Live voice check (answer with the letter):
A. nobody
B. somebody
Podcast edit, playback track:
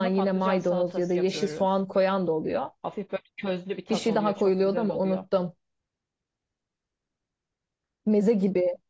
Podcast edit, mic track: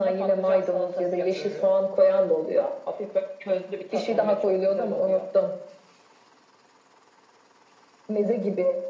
A